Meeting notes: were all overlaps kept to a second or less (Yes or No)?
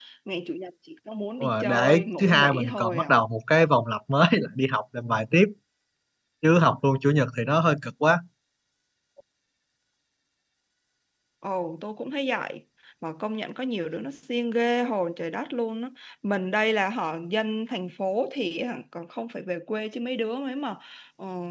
No